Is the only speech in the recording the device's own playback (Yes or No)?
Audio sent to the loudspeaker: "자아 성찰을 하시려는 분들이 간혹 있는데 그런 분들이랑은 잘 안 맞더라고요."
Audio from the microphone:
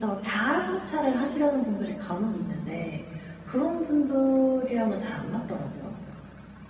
Yes